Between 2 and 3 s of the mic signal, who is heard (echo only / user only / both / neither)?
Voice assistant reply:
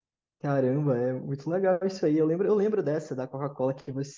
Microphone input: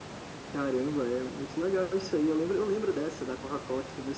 echo only